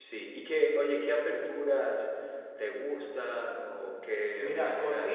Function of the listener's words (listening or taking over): taking over